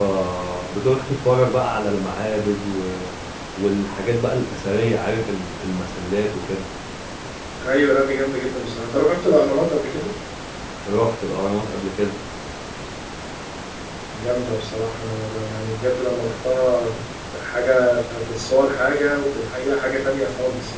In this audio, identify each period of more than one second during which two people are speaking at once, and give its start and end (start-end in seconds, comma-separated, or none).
none